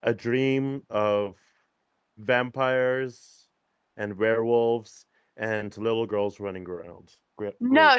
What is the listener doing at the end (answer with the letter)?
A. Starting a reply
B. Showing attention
A